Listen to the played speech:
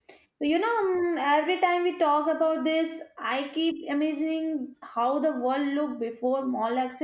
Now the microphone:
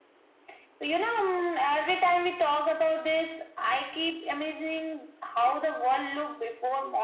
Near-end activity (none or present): none